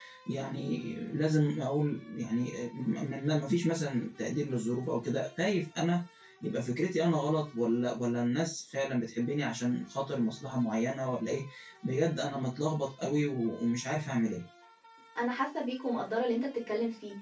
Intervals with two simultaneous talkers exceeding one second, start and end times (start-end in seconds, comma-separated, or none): none